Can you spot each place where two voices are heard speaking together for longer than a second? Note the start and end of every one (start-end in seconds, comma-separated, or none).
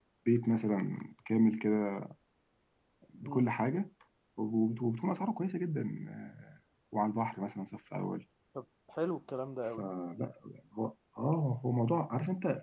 none